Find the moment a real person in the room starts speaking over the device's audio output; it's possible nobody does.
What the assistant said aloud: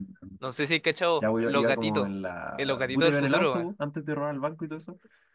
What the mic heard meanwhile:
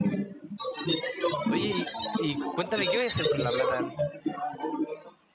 1.4 s

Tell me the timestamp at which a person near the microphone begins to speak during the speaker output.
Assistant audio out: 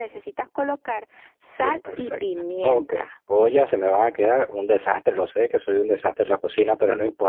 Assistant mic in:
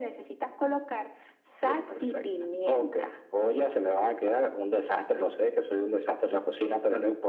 none

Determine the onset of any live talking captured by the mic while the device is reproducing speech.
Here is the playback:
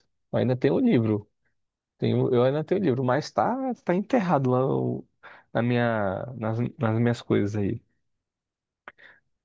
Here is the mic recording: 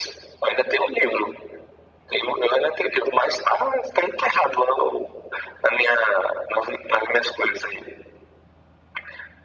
none

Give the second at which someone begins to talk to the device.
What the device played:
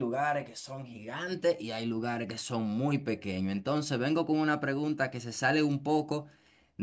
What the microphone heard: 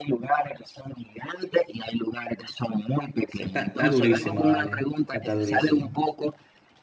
3.3 s

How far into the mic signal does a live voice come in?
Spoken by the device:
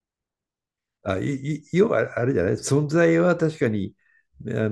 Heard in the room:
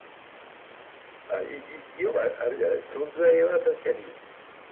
none

